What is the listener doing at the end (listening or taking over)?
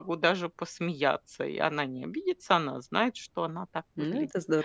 taking over